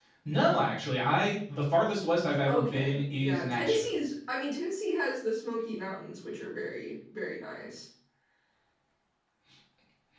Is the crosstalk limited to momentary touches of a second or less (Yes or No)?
No